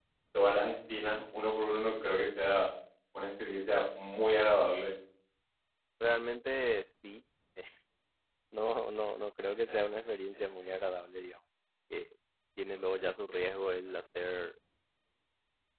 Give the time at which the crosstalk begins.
none

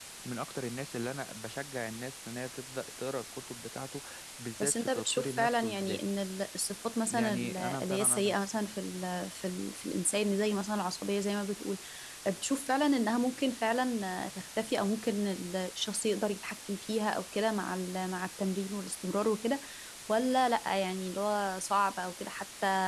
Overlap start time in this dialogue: 4.6 s

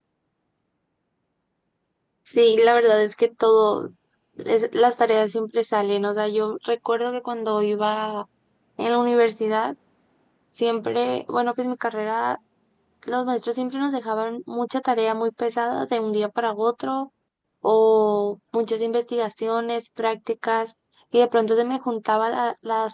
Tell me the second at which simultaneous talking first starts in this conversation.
none

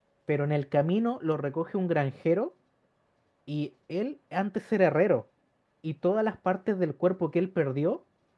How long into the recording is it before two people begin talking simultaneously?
none

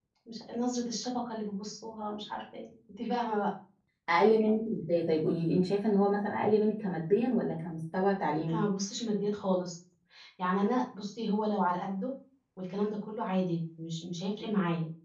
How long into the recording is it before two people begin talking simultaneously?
none

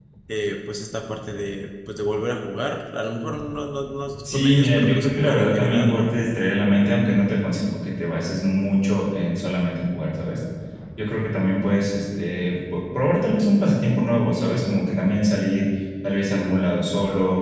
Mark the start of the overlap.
4.2 s

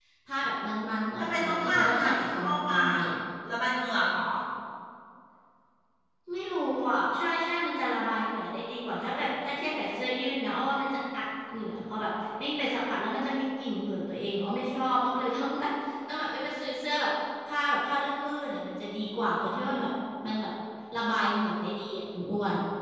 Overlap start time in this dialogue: 1.2 s

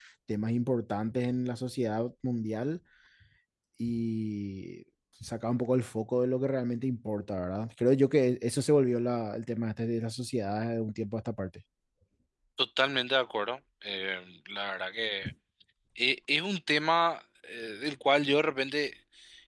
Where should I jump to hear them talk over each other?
none

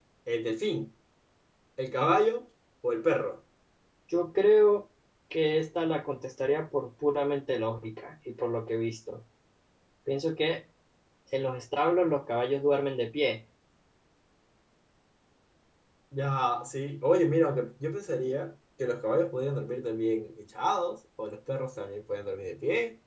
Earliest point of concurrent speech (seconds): none

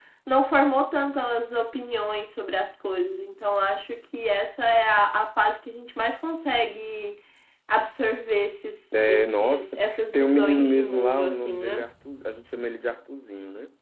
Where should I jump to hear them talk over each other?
8.9 s

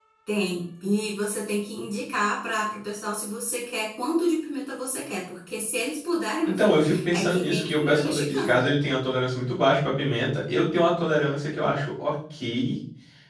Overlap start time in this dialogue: 6.5 s

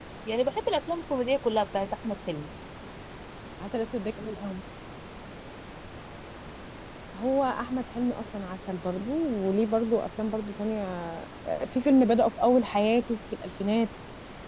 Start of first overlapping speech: none

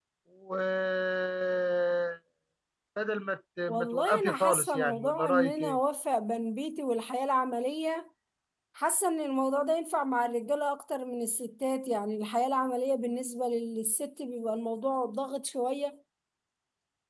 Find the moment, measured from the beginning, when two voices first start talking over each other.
3.7 s

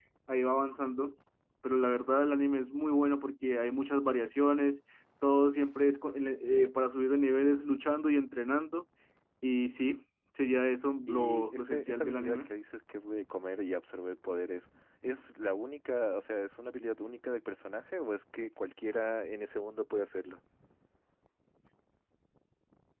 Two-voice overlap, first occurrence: 11.1 s

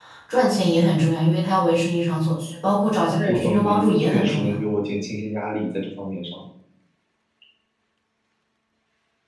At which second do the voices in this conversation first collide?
3.2 s

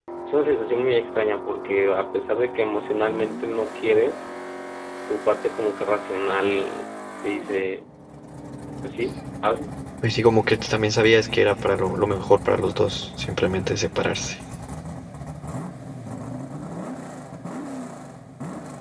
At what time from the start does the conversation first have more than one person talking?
none

